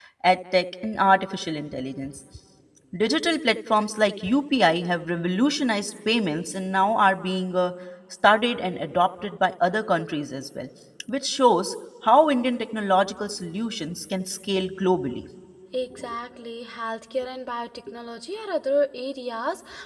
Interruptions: none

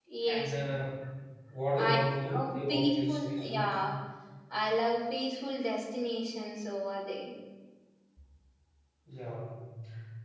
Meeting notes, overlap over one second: present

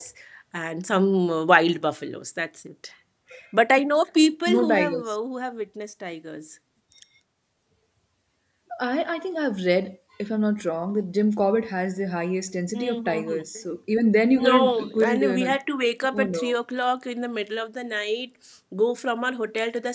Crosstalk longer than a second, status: present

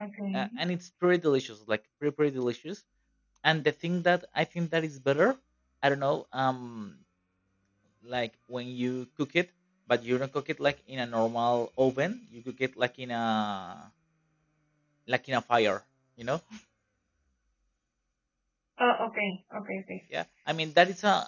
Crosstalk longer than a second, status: none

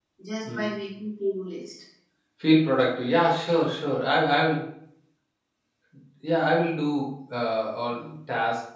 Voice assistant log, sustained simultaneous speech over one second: none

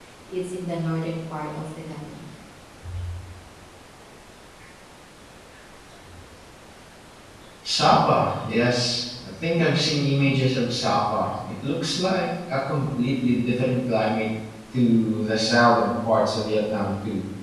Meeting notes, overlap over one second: none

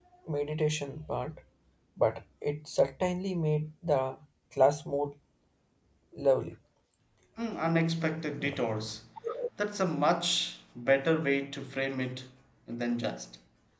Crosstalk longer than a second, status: none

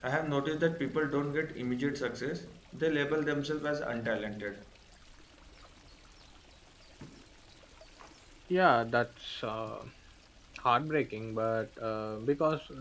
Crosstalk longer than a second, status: none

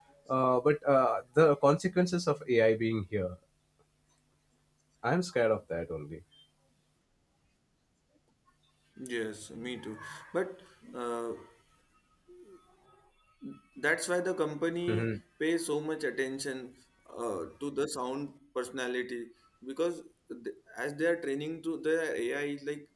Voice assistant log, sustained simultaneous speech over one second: none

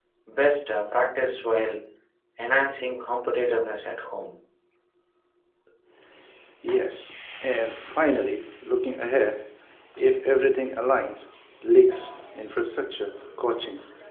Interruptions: none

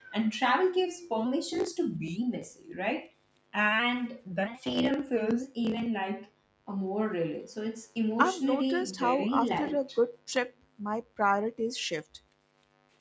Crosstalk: present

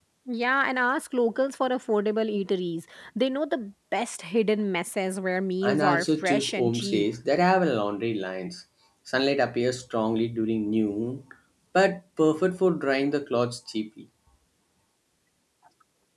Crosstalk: present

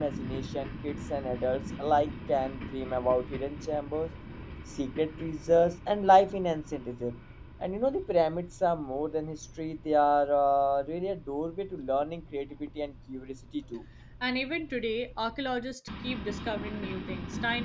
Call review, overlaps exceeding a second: none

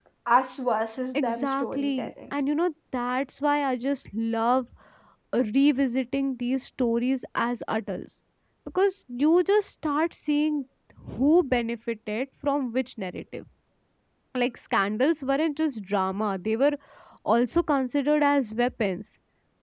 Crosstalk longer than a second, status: present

